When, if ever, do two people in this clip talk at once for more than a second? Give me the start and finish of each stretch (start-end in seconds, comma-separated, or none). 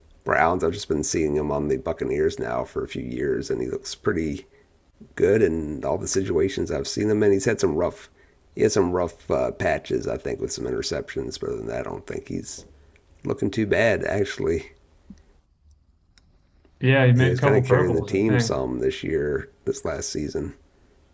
17.2-18.6